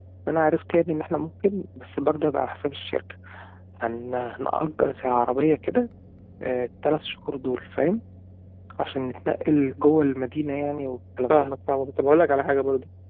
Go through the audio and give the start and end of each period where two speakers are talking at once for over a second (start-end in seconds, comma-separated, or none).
none